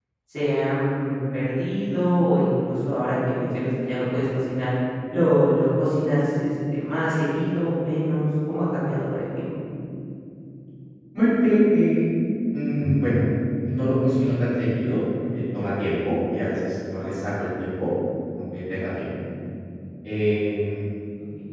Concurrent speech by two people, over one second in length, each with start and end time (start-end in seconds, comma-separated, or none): none